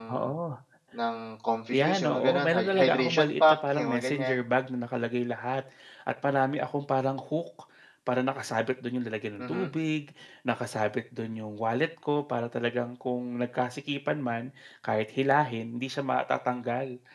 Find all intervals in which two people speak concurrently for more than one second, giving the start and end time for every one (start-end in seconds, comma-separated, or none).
1.7-4.4